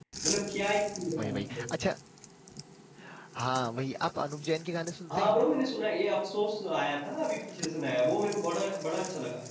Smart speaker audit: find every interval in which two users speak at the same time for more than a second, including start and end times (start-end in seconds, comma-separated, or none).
none